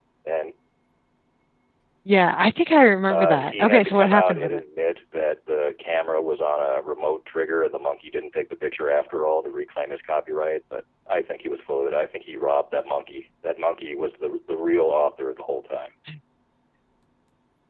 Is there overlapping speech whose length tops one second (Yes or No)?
Yes